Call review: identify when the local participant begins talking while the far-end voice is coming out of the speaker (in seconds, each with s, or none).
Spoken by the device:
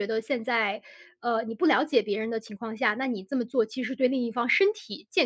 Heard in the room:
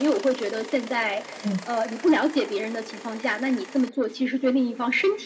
1.4 s